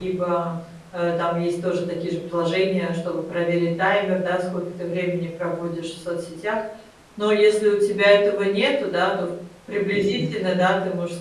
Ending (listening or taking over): listening